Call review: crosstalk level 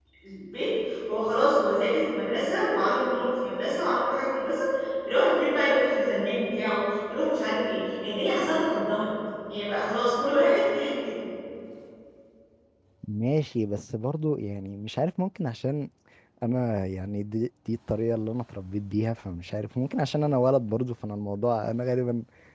none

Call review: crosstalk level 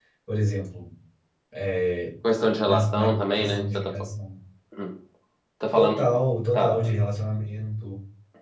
present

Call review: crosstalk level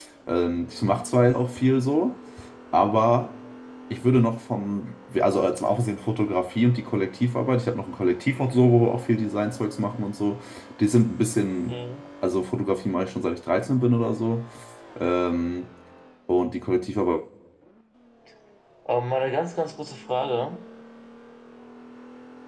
none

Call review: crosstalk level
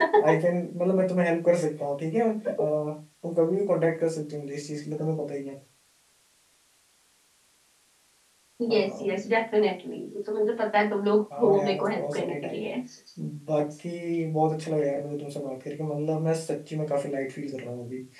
present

